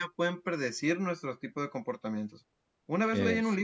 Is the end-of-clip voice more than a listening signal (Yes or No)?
No